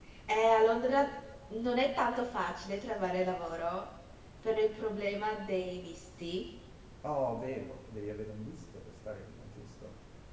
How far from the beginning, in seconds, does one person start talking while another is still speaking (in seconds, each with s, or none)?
none